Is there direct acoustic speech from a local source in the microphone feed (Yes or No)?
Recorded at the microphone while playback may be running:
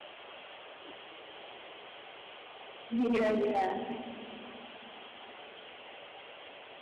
Yes